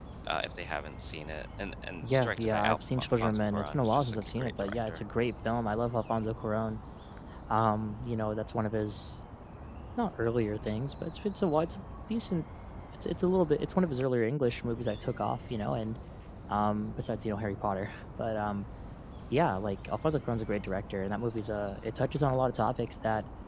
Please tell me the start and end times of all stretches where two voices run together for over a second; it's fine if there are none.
2.0-5.0

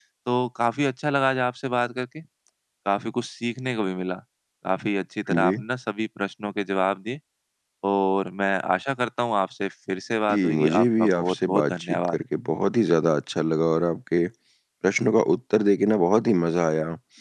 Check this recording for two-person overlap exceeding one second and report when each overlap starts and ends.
10.3-12.2

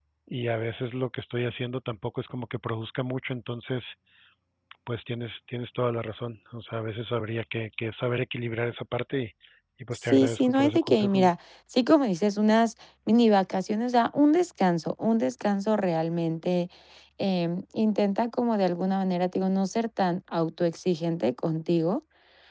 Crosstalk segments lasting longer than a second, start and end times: 10.1-11.3

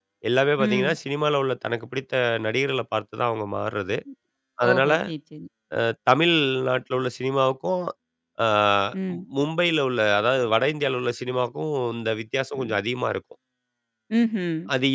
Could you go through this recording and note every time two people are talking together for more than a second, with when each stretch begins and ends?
none

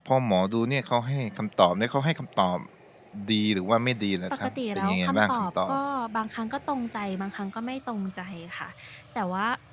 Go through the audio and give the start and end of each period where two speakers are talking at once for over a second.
4.3-5.8

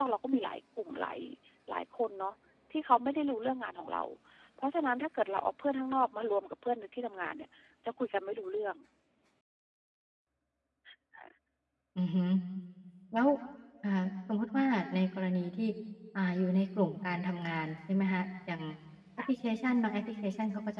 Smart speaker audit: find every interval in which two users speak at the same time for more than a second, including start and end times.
none

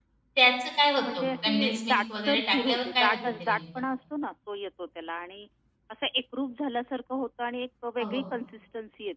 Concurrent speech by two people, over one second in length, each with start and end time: 0.9-3.6

